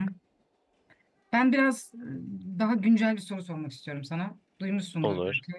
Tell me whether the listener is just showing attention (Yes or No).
Yes